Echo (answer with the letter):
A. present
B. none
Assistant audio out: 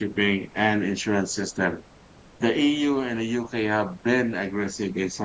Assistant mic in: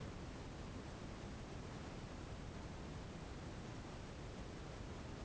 B